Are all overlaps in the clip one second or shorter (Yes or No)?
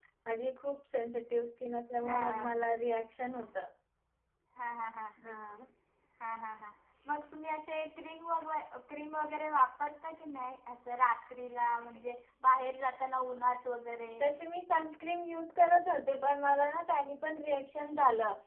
Yes